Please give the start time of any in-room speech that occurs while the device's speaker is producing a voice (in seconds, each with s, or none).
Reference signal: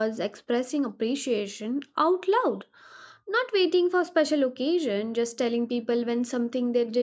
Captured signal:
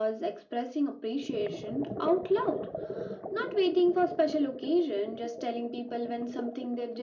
none